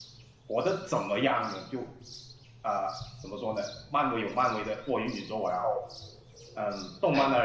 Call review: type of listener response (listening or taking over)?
listening